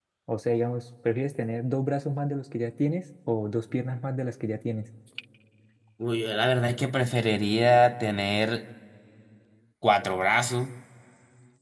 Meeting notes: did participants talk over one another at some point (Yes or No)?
No